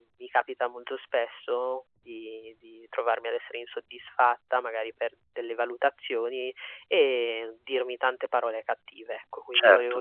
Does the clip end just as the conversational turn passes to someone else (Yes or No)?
No